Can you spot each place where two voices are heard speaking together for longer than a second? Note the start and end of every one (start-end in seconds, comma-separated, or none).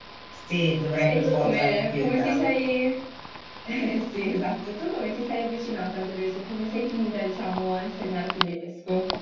1.1-2.5